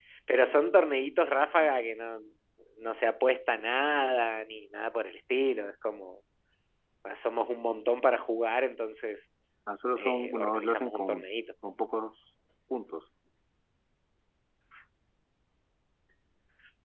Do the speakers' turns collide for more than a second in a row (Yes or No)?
Yes